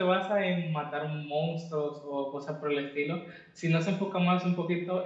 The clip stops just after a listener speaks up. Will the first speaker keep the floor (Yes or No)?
Yes